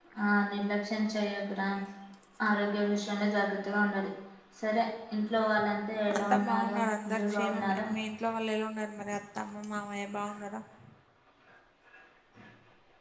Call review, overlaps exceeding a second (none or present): present